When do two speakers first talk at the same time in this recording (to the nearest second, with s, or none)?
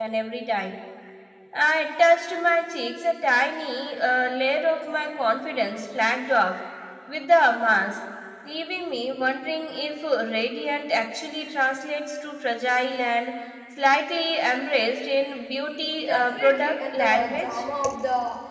16 s